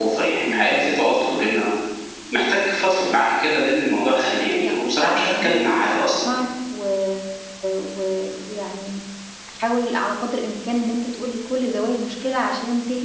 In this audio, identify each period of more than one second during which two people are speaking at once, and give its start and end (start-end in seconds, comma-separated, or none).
4.6-6.1